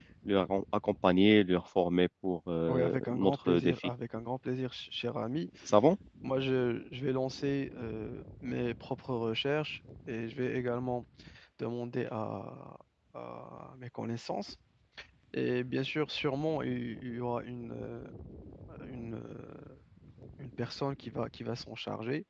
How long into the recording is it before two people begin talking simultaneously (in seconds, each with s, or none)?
2.7 s